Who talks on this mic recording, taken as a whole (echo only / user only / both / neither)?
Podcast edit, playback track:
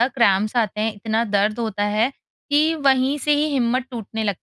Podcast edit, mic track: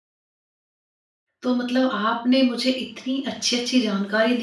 user only